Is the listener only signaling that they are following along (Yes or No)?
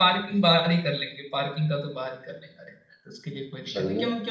Yes